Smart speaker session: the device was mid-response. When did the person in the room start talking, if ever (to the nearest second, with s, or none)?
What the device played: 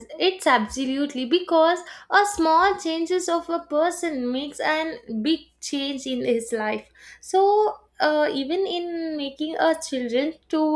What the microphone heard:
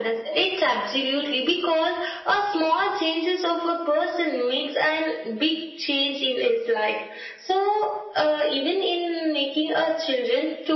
none